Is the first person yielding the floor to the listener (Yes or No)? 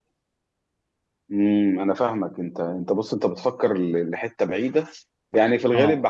No